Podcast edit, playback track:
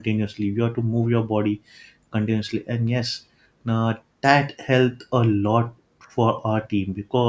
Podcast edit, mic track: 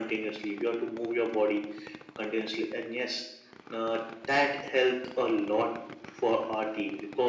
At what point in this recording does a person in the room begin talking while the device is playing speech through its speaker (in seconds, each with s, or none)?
none